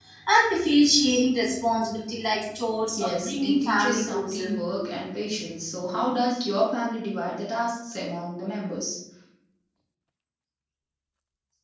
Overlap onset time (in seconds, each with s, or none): 3.0 s